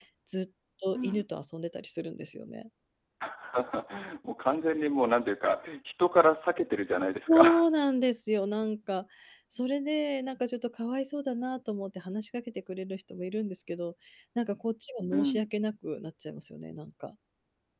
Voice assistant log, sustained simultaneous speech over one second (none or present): none